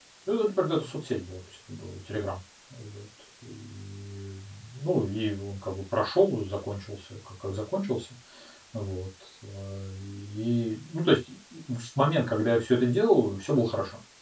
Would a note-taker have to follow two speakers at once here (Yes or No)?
No